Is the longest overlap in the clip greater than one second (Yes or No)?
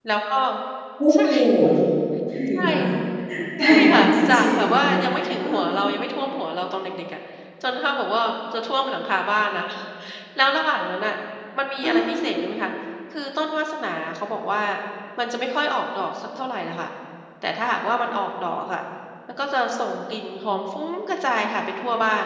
Yes